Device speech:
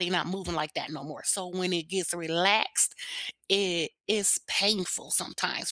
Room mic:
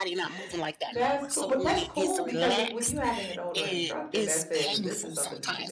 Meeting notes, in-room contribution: present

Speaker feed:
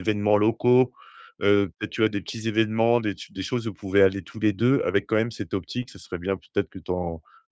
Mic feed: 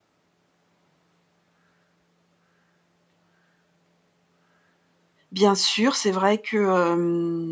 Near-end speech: present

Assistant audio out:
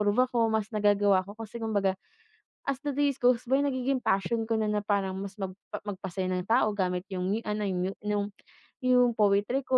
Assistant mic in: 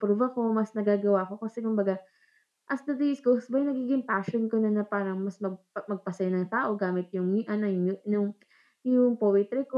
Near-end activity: none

